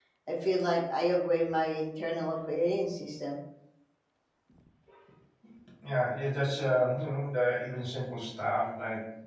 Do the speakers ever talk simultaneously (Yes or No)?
No